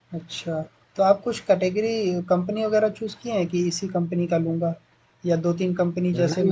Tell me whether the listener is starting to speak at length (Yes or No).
Yes